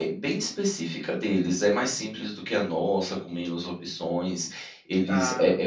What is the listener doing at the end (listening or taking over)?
listening